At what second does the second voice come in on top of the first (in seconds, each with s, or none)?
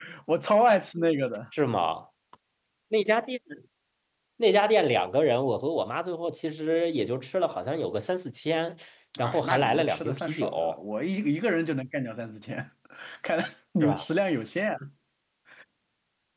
9.2 s